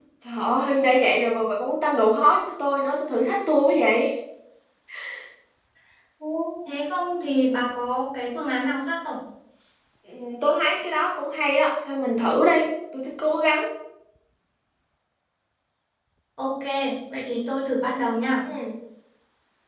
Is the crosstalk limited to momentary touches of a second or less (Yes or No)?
Yes